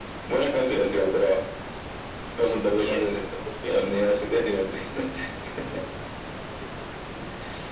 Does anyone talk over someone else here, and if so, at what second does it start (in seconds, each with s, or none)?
2.7 s